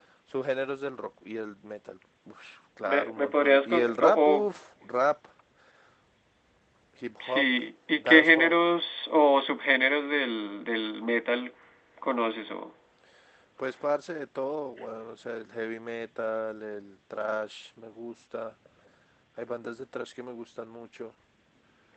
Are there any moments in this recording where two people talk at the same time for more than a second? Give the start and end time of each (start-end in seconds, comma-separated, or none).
2.8-4.3